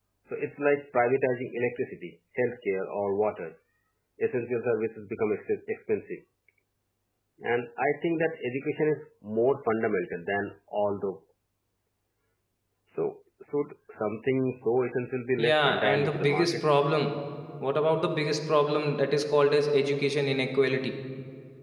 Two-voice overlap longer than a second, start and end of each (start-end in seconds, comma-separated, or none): 15.4-16.7